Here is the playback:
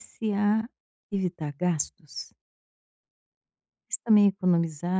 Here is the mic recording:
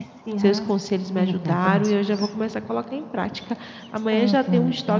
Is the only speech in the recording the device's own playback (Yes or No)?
No